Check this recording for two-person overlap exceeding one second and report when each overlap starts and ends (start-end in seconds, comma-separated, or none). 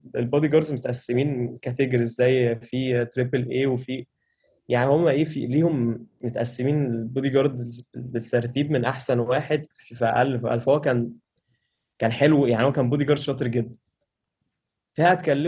none